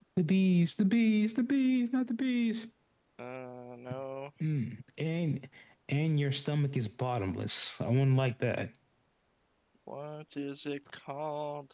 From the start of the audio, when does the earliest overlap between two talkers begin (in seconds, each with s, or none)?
none